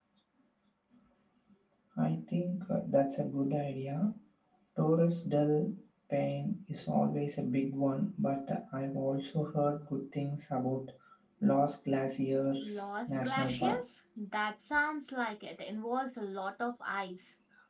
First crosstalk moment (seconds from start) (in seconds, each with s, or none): 12.6 s